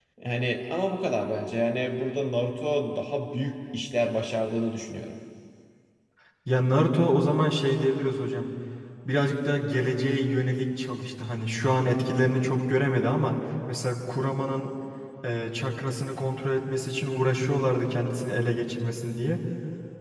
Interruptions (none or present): none